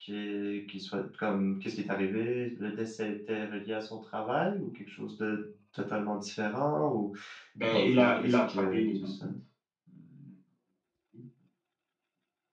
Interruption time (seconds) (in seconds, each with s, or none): 7.7 s